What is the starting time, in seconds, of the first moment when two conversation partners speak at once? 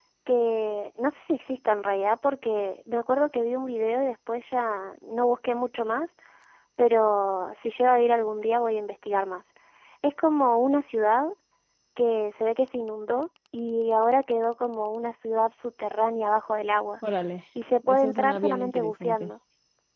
17.9 s

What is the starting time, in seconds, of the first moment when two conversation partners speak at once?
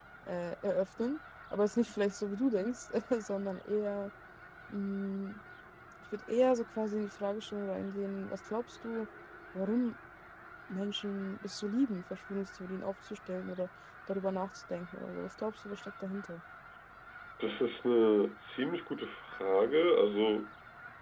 none

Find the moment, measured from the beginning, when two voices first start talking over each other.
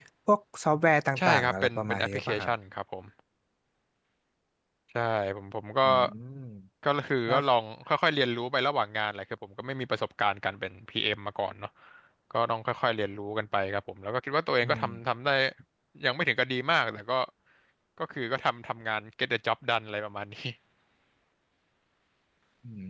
1.2 s

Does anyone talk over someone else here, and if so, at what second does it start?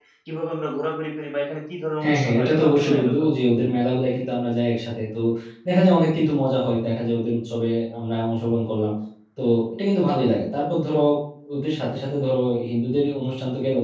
2.0 s

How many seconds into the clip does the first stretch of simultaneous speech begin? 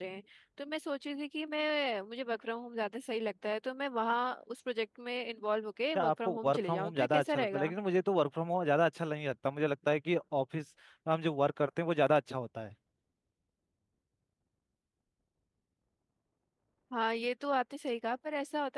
6.0 s

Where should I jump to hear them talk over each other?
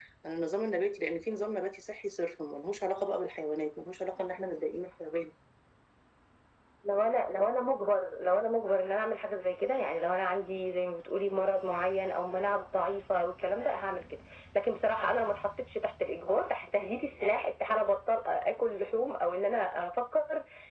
none

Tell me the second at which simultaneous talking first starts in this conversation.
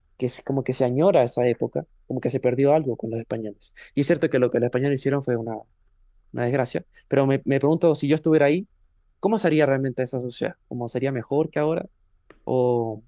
none

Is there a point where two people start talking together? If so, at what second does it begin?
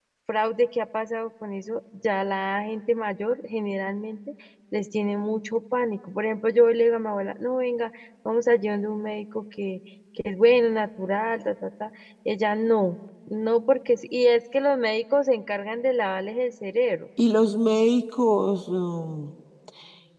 none

